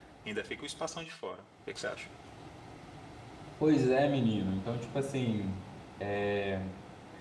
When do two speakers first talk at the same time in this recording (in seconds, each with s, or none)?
none